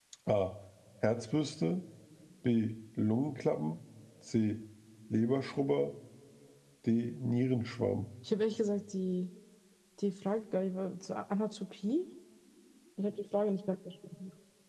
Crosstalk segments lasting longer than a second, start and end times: none

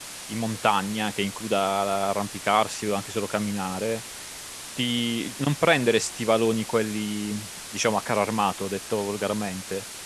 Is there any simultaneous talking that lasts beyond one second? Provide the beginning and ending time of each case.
none

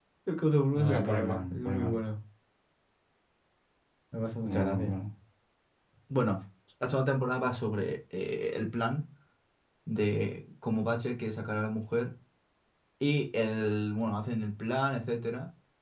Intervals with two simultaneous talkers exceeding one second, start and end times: 0.7-2.0

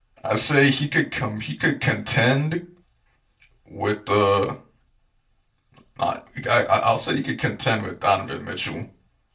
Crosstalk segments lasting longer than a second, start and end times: none

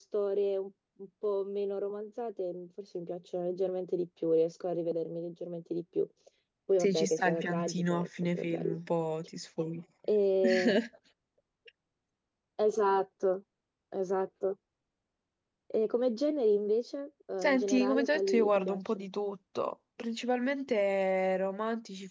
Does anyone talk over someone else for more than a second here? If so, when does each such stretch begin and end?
6.8-8.8, 17.4-19.1

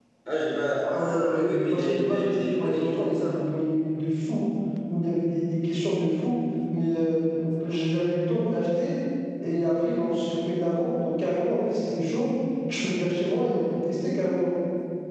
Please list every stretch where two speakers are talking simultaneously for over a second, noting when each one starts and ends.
0.9-3.4

